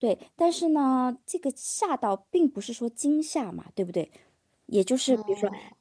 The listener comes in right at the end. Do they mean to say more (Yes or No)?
No